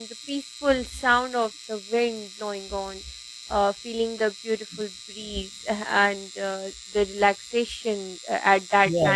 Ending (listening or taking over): taking over